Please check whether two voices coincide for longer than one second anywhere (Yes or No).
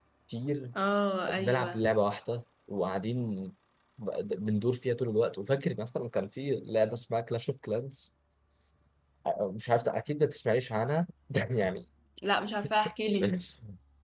No